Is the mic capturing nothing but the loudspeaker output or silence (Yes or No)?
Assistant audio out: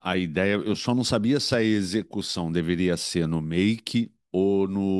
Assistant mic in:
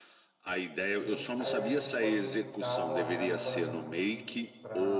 No